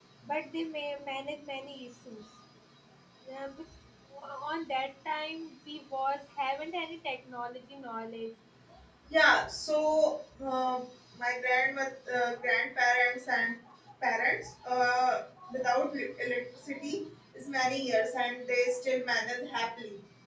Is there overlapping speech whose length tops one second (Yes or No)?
No